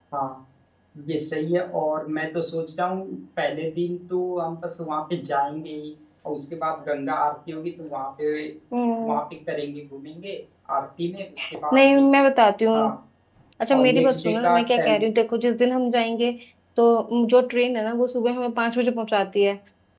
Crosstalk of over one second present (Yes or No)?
Yes